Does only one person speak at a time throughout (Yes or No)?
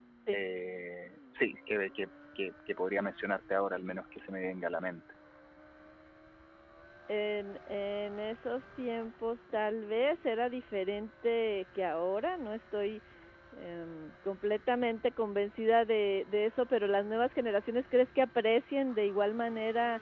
Yes